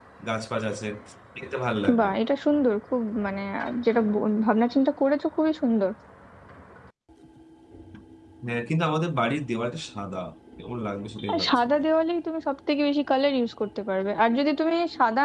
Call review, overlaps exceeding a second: none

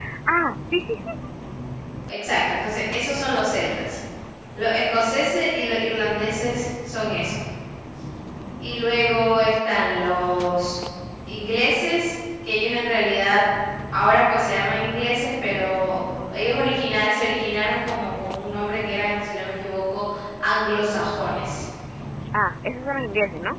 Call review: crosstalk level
none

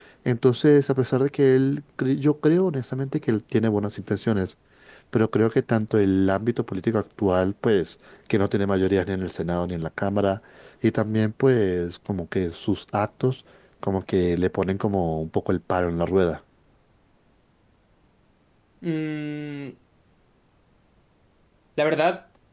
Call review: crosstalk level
none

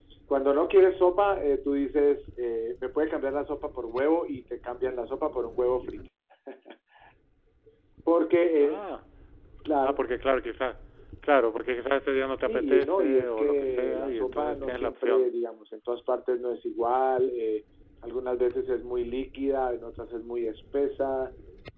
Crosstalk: present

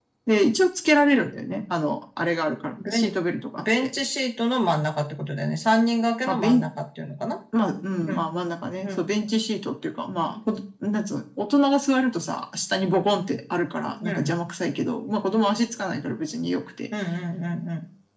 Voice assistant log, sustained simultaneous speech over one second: none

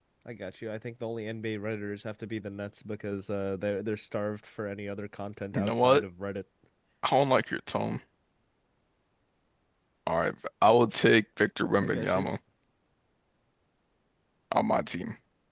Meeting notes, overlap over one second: none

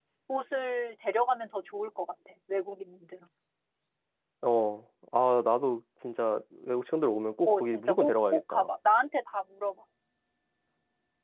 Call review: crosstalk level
present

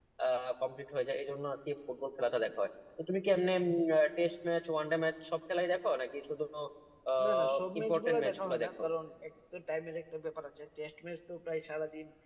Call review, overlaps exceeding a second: present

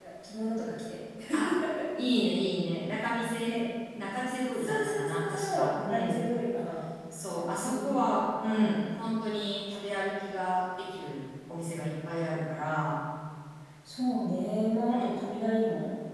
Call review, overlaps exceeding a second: present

